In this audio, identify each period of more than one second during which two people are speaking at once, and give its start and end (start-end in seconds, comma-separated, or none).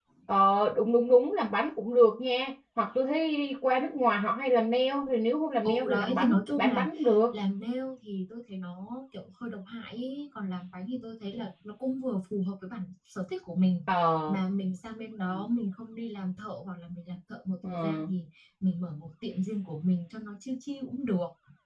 5.7-6.9